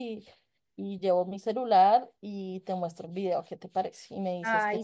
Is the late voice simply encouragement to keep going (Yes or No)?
No